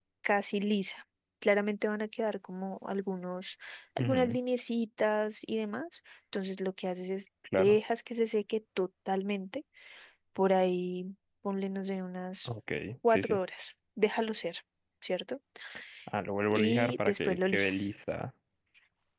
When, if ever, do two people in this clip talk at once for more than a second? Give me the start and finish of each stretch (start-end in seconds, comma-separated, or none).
16.5-17.9